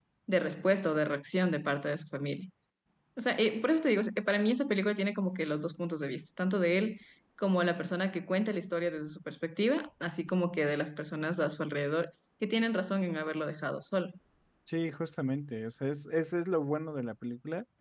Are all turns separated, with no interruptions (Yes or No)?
Yes